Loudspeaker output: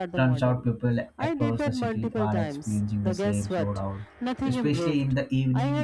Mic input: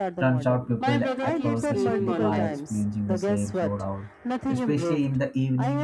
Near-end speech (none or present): present